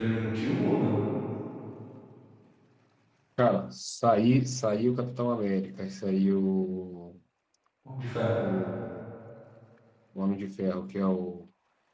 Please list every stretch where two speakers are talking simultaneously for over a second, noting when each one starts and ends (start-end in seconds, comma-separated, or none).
none